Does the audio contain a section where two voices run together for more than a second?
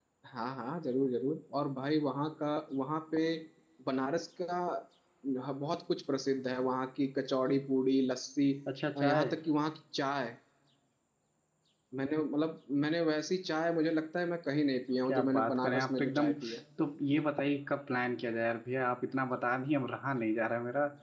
Yes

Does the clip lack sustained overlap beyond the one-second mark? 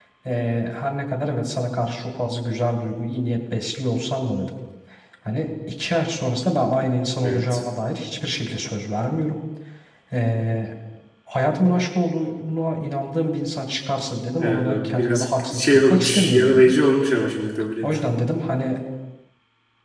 No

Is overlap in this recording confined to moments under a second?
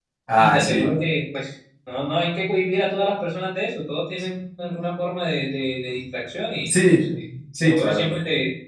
Yes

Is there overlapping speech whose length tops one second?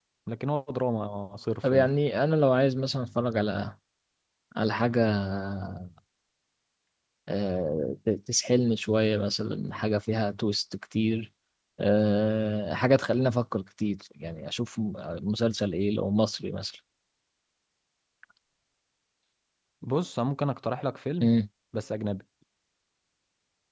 No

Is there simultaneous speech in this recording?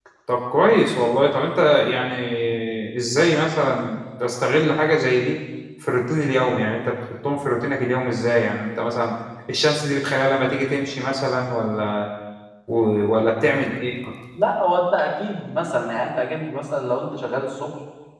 No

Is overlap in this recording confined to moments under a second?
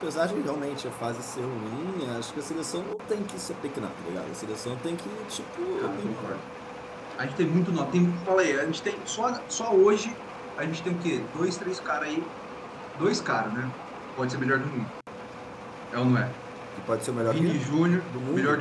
No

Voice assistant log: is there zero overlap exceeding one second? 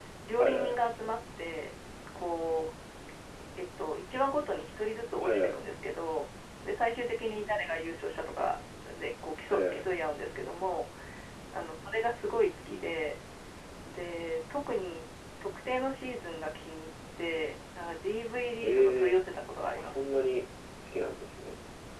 Yes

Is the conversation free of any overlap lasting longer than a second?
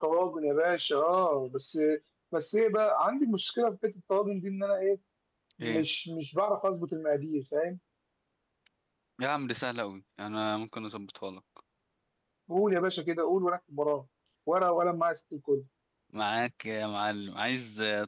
Yes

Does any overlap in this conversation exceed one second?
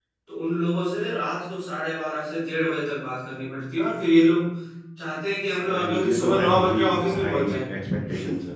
Yes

